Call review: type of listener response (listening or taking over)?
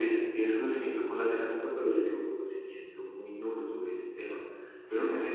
listening